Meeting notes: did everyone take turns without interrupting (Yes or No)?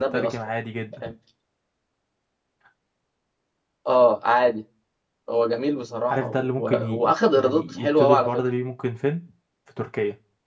No